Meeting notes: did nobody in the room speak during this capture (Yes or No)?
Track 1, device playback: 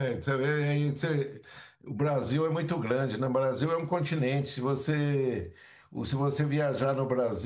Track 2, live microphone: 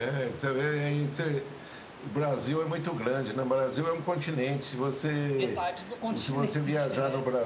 No